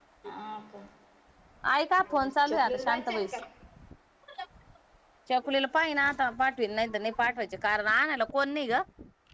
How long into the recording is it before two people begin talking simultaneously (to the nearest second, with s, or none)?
2 s